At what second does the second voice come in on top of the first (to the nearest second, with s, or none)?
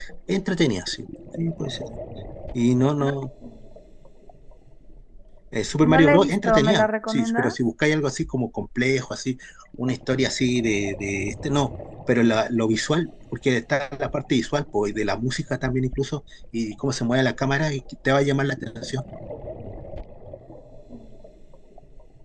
6 s